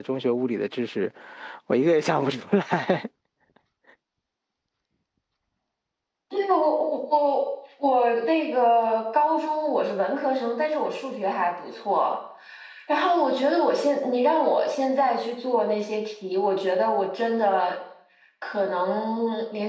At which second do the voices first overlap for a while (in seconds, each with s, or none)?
none